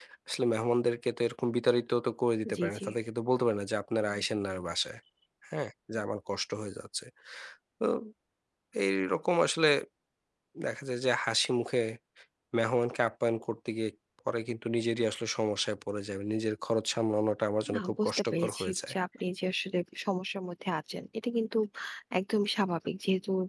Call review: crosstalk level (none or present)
present